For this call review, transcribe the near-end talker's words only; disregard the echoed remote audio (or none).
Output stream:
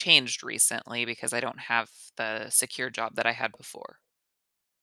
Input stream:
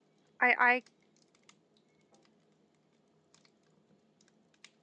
I I